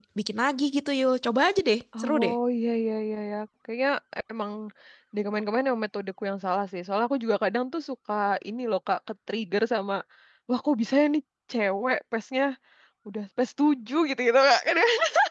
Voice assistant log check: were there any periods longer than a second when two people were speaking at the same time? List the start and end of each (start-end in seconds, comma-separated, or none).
none